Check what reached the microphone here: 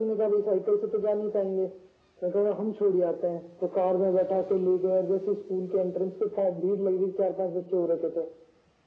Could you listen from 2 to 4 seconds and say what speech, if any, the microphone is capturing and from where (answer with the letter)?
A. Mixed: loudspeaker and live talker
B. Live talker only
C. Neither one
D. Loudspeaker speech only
D